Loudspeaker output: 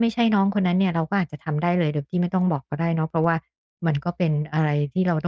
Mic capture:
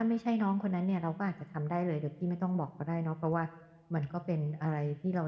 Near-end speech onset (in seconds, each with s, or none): none